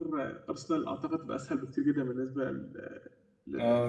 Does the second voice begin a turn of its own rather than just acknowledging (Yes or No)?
Yes